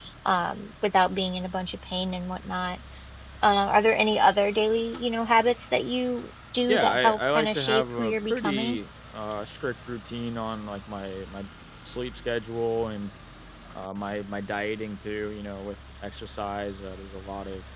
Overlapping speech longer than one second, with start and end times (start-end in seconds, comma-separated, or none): 6.7-8.8